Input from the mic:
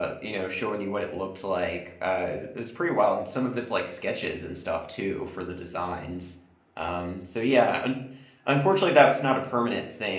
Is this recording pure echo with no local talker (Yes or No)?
No